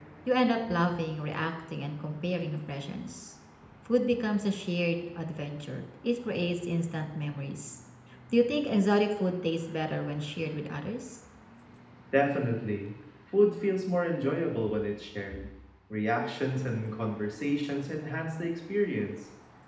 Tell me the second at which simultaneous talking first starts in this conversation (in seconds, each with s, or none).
none